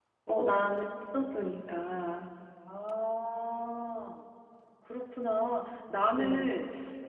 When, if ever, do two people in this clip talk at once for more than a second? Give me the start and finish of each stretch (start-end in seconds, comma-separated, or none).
none